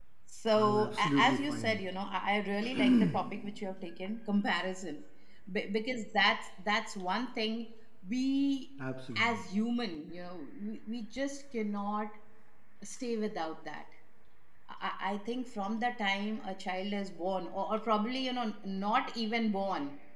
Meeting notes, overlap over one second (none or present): present